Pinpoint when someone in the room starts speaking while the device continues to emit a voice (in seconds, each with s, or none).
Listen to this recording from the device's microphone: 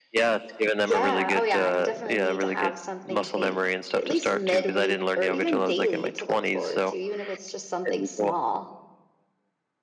0.8 s